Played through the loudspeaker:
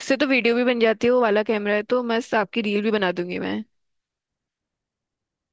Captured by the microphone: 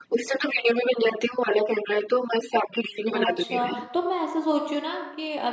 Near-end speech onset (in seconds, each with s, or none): 3.1 s